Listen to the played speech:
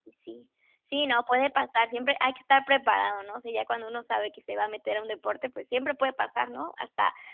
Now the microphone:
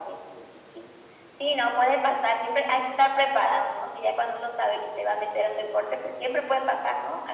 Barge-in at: none

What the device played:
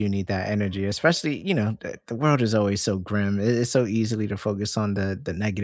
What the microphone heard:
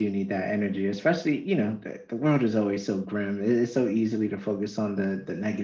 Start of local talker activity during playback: none

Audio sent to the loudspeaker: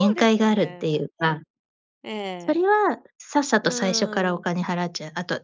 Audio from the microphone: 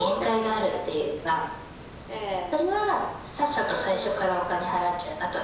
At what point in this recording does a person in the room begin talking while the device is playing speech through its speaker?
none

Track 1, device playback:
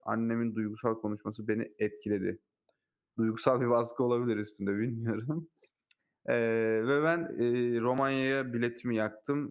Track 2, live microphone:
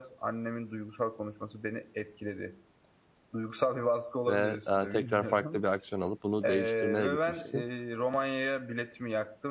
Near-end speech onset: 4.3 s

